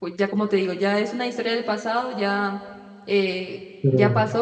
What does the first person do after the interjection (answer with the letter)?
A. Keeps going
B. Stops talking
A